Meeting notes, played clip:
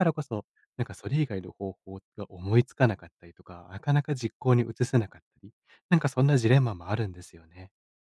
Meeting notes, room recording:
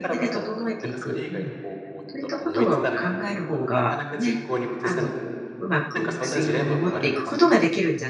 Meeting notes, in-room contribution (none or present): present